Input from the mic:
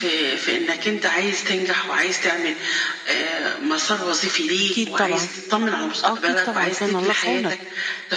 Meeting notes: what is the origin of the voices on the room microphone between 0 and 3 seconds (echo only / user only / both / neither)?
echo only